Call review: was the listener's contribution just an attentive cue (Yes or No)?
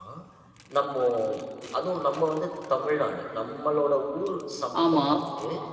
Yes